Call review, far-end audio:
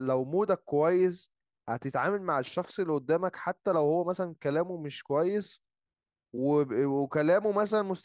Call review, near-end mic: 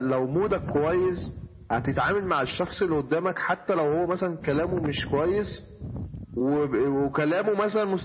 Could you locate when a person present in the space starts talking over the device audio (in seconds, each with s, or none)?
none